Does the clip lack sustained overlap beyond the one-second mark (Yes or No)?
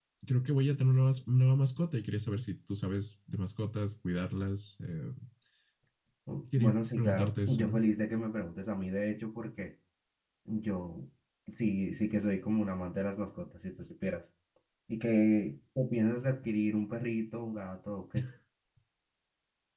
No